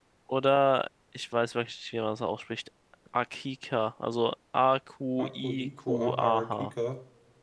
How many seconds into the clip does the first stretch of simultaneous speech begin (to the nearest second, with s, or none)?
5 s